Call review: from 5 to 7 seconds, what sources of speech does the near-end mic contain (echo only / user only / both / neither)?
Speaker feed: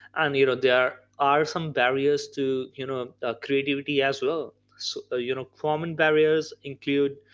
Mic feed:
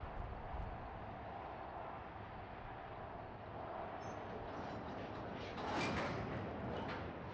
neither